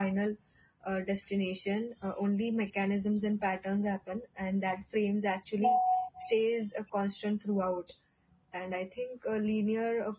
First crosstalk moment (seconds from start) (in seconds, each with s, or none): none